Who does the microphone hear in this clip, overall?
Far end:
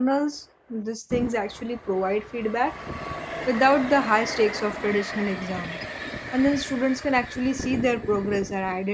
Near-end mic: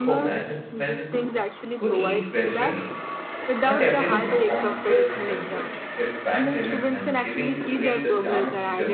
both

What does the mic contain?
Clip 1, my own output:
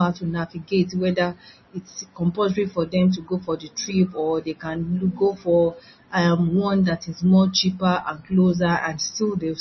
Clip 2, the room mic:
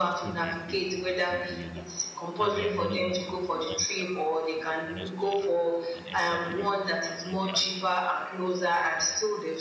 both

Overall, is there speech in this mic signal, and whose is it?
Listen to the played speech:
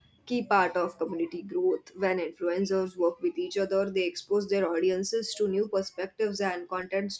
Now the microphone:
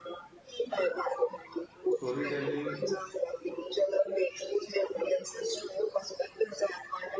both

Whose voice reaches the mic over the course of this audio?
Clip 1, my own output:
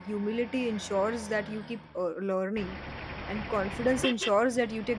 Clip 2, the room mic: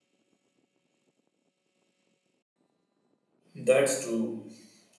user only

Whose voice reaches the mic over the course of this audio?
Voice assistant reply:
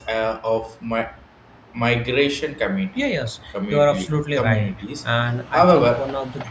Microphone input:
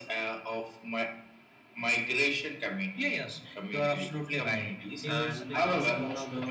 both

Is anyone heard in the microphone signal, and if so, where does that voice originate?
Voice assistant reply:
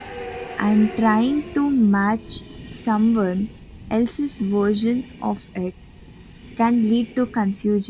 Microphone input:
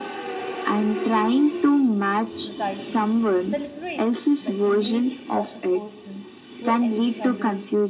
both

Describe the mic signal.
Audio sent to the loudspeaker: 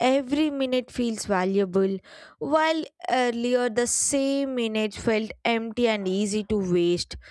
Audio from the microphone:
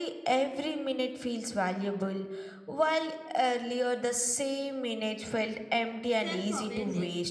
both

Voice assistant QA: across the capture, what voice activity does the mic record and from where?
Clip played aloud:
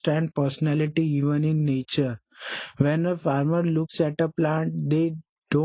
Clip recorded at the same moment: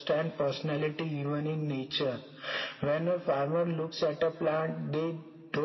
echo only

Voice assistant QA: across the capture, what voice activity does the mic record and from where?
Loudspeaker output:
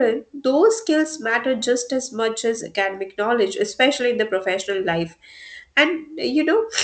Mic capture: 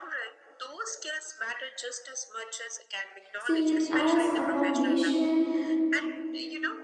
both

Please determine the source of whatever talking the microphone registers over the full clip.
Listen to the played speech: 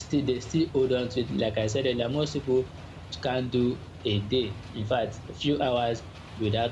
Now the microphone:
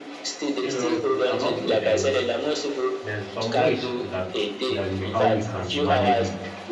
both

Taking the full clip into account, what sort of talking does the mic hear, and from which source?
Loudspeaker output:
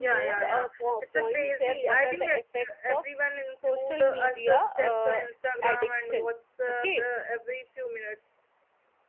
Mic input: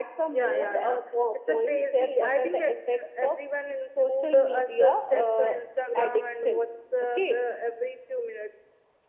echo only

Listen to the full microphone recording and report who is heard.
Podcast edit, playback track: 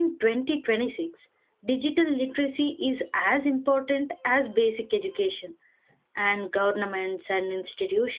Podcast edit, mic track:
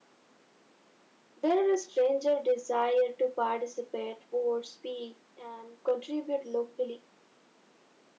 user only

